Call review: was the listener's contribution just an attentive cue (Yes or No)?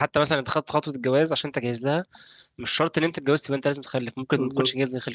No